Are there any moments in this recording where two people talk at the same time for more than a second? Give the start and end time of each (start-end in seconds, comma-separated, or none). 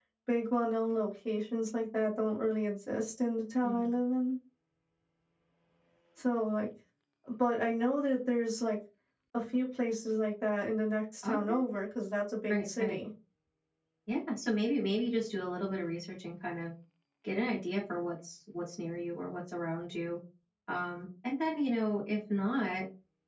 none